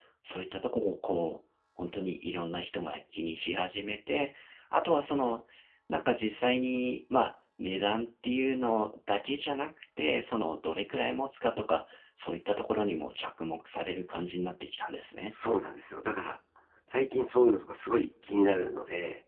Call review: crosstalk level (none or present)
none